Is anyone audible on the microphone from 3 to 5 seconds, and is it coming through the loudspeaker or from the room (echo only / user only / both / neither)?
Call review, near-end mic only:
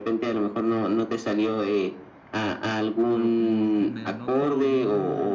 both